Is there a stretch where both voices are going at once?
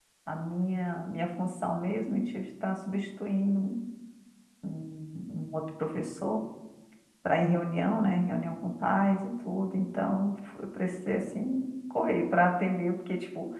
No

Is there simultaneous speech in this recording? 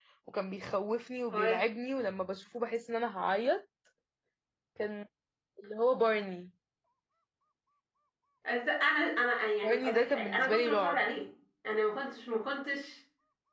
Yes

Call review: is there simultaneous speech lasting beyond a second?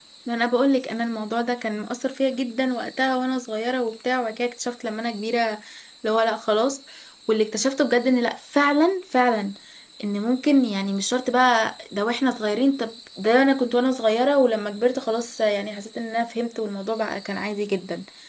No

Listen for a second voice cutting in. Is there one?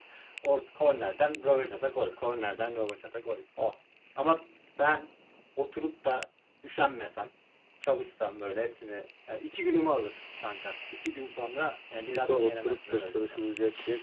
Yes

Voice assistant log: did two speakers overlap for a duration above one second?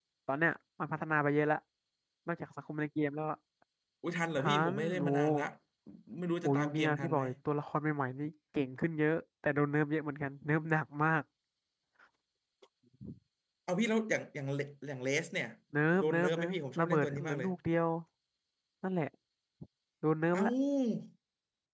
Yes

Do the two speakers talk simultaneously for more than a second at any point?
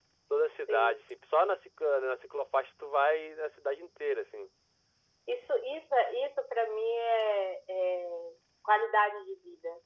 No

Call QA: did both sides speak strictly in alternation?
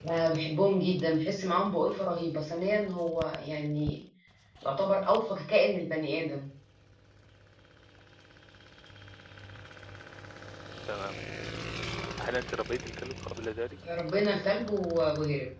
Yes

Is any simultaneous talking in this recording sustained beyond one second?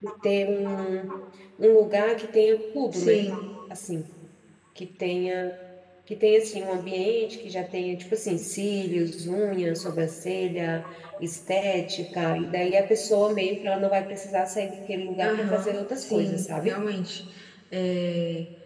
Yes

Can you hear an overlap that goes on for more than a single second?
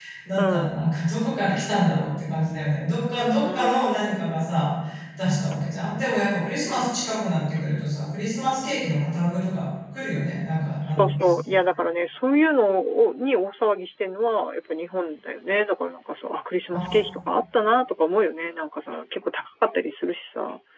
No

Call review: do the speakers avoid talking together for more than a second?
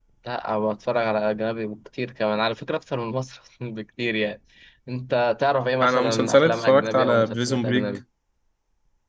No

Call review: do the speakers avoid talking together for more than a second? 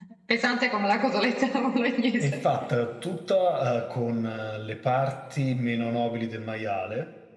Yes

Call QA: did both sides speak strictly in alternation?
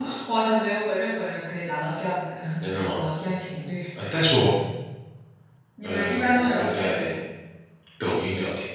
No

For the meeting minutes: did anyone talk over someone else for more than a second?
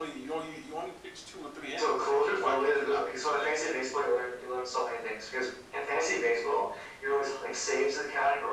Yes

